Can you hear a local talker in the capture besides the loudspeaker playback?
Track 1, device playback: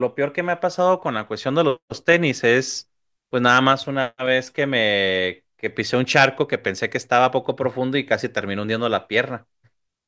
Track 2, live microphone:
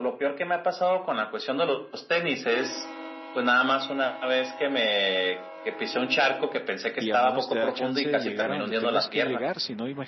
Yes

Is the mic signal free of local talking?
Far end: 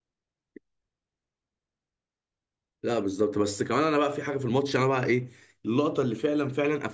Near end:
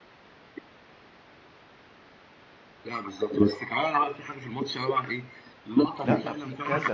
No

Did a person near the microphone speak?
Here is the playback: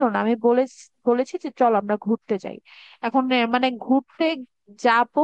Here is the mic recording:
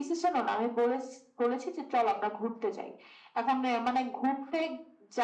No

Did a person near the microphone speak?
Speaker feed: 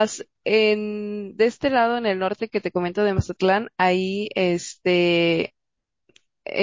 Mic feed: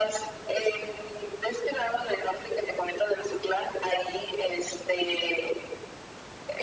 No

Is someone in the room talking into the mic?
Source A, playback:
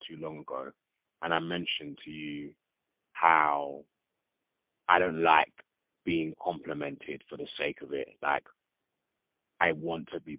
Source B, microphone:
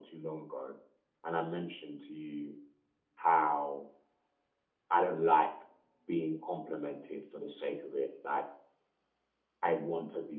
No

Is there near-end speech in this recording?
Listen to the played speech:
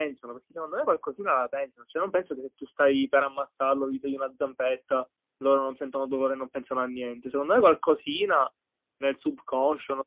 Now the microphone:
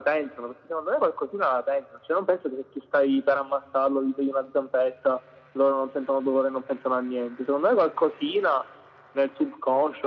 No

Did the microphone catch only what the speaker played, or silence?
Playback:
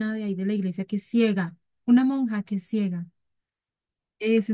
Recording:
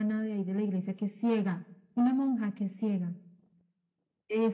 Yes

